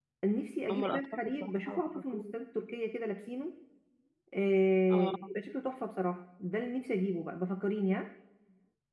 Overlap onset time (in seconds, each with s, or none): 0.7 s